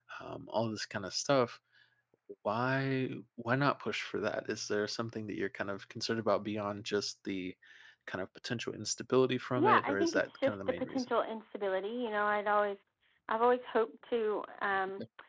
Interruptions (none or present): present